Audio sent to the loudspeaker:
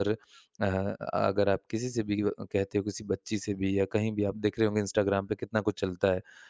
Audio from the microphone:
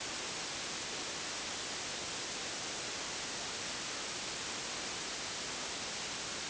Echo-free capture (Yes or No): Yes